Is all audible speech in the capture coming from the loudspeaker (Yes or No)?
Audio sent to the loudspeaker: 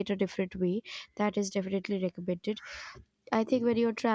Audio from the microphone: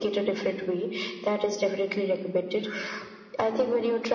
Yes